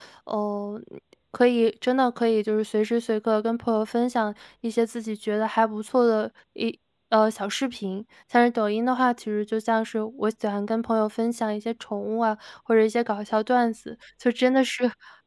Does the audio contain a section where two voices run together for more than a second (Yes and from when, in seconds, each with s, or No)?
No